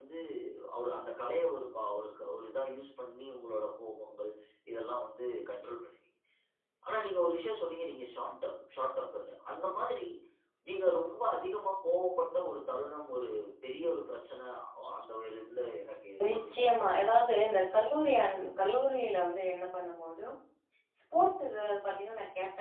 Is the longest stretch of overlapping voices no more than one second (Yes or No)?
No